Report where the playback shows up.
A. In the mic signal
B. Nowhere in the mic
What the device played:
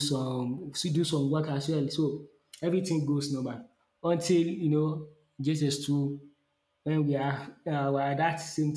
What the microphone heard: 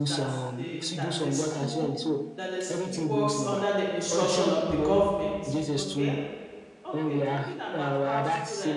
A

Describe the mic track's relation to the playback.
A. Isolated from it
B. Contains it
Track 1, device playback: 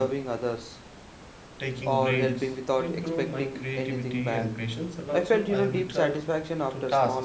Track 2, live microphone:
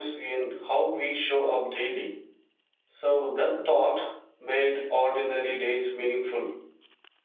A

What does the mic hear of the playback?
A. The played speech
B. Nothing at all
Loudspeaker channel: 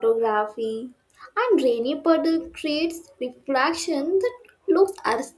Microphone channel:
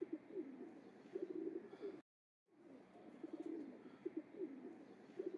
B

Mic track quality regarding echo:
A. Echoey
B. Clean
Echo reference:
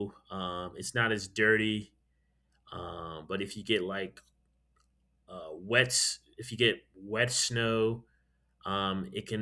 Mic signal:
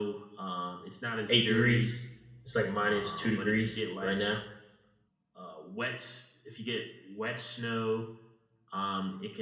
A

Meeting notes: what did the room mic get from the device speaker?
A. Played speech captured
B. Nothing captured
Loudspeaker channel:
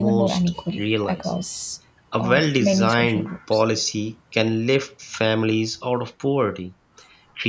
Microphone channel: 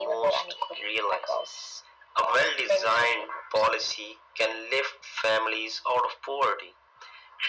A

